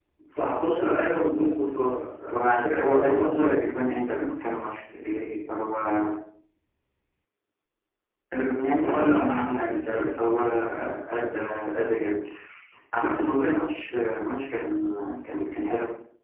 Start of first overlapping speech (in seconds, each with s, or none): 2.3 s